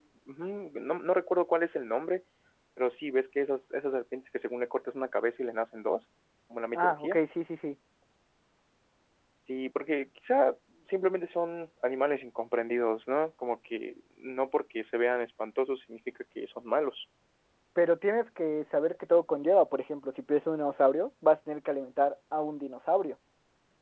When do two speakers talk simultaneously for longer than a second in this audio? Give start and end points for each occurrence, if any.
none

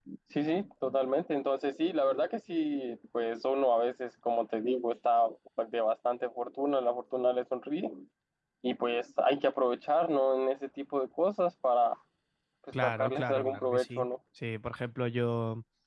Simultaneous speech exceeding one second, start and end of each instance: 12.8-14.0

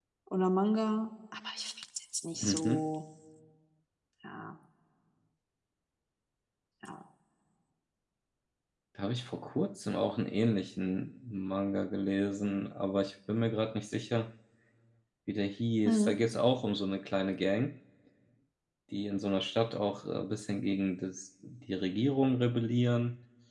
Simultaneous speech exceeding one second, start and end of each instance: none

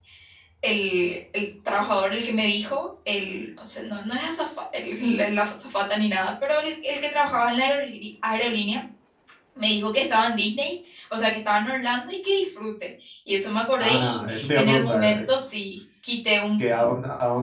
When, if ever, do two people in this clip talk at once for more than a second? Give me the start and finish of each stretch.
13.8-15.2

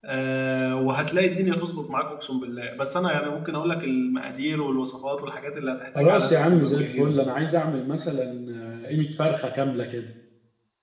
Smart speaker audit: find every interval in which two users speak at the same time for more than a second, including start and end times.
6.0-7.2

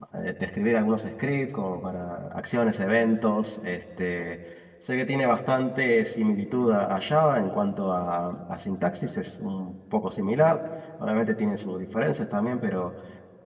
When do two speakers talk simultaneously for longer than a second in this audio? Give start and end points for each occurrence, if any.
none

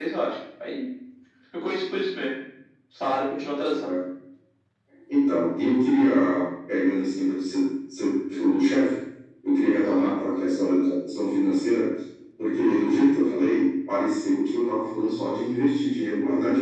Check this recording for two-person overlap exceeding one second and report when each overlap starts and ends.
none

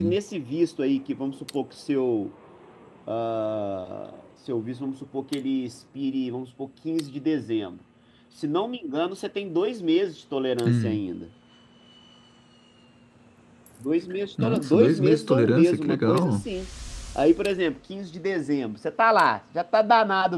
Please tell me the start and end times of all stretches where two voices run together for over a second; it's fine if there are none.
14.4-16.3

